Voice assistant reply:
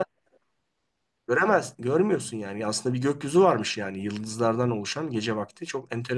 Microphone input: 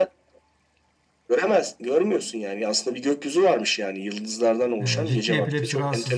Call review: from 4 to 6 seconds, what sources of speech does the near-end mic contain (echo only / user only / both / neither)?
both